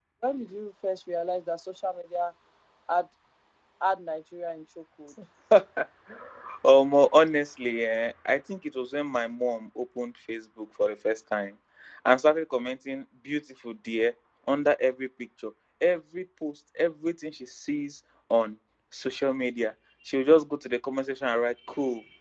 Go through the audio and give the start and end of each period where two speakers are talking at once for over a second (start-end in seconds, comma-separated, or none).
none